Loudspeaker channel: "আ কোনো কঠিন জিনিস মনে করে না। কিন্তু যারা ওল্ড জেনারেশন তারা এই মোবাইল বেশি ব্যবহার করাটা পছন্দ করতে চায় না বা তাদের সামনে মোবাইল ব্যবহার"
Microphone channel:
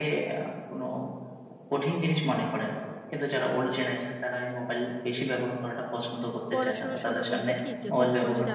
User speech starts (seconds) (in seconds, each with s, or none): 6.5 s